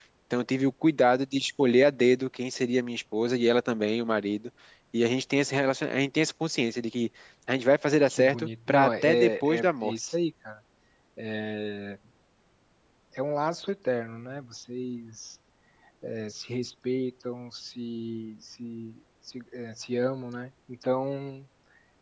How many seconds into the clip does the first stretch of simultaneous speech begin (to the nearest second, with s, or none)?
8 s